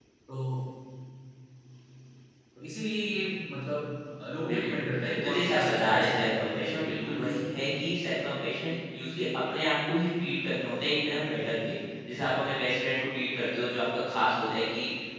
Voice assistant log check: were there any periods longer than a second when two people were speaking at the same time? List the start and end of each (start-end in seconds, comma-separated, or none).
5.2-6.5